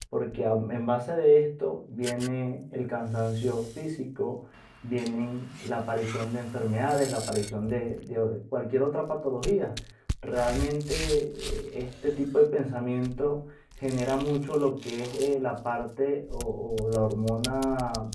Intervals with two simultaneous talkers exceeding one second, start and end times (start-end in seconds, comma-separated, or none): none